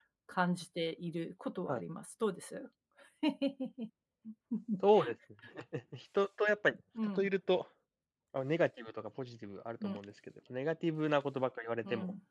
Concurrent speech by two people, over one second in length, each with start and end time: none

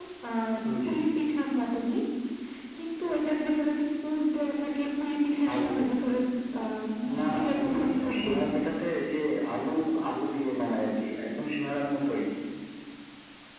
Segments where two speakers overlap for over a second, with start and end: 7.2-8.4

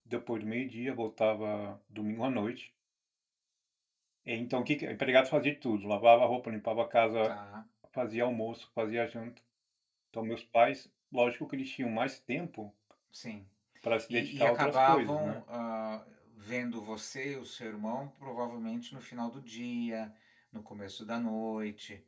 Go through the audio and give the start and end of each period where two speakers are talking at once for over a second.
14.1-15.4

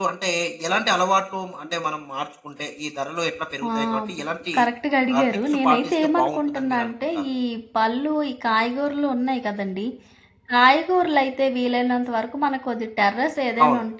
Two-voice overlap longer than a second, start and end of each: 5.2-7.2

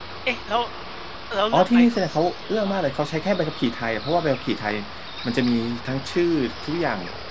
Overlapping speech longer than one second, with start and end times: 1.5-2.7

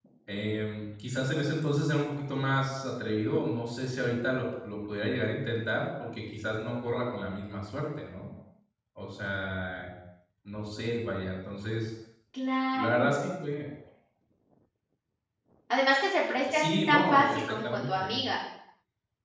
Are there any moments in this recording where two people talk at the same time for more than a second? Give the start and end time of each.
16.5-18.2

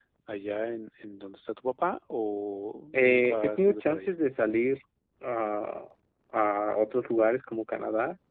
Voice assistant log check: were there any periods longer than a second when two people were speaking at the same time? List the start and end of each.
2.9-4.1

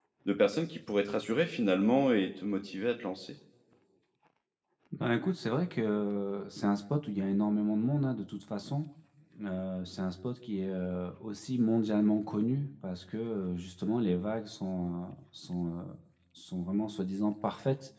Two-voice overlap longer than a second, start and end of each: none

